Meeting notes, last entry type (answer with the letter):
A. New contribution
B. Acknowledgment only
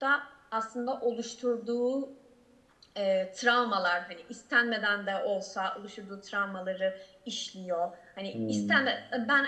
B